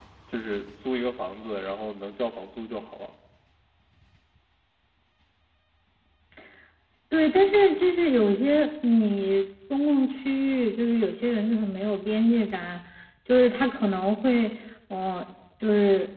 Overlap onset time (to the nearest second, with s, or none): none